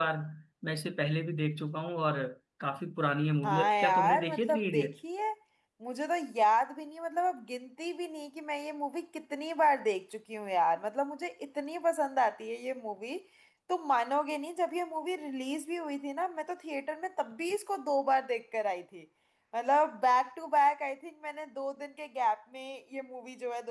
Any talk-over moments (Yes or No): Yes